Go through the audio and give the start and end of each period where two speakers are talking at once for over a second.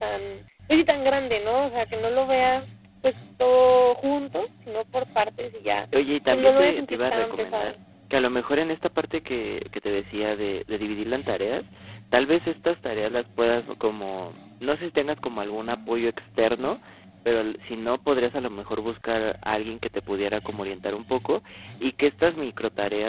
6.3-7.7

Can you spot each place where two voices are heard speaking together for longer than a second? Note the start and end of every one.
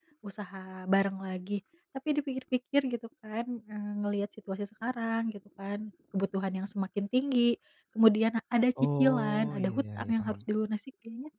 9.0-10.3

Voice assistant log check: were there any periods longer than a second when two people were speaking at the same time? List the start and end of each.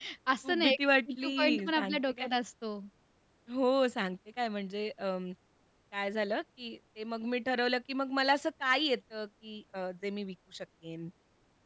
1.1-2.3

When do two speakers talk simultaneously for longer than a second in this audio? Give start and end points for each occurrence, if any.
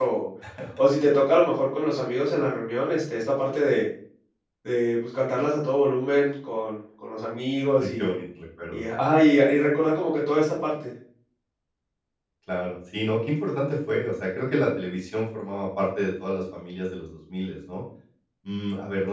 none

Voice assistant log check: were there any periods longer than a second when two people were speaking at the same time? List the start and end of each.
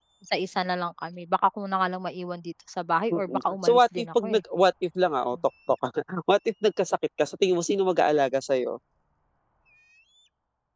3.1-4.4

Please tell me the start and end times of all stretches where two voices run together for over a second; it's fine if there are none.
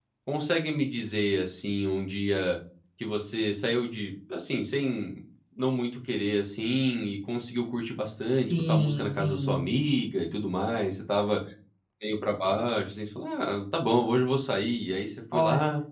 8.3-9.6

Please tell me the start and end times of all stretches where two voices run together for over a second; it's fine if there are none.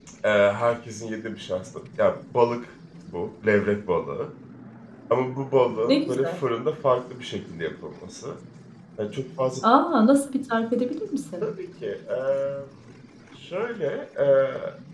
none

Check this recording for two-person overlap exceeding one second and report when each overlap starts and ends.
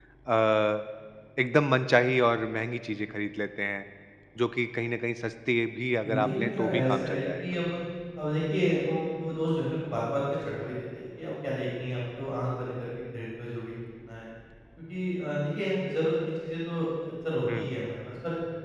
6.0-7.5

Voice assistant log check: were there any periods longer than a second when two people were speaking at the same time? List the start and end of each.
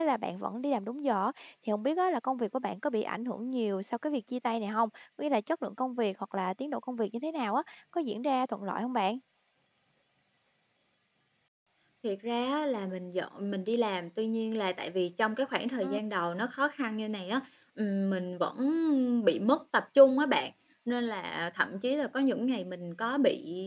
none

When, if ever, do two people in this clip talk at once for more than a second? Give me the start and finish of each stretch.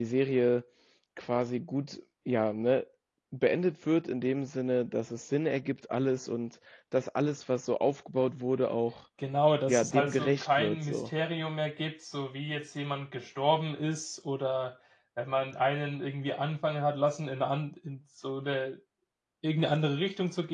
9.7-11.1

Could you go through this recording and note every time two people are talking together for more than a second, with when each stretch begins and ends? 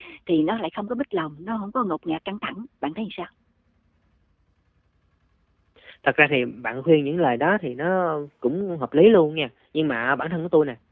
none

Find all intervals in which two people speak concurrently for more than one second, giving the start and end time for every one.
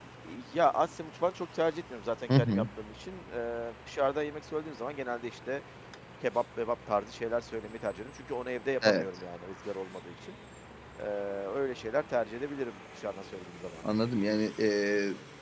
none

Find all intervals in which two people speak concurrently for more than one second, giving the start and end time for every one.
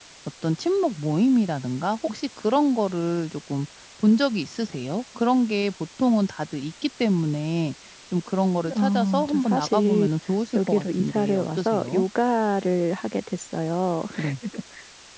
8.8-10.1, 10.7-12.0

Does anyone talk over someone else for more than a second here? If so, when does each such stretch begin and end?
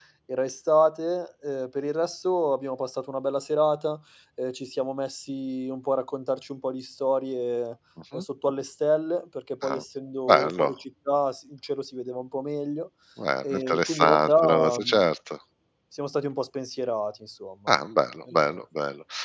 13.5-15.0

